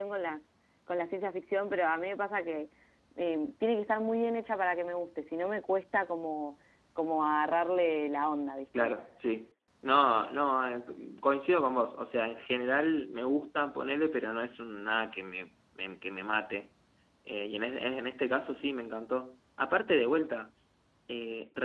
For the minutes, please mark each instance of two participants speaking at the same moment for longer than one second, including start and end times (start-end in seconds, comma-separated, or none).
none